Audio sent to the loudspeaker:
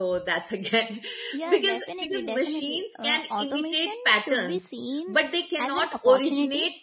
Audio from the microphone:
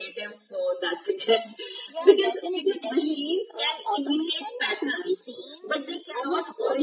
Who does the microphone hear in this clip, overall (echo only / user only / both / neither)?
echo only